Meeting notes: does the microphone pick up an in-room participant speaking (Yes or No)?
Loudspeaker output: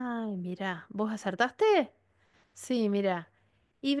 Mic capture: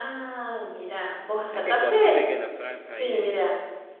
Yes